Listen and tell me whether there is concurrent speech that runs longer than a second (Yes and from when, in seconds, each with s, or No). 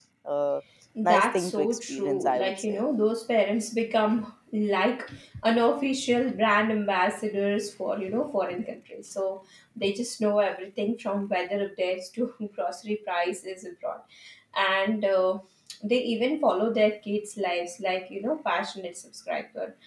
Yes, from 1.0 s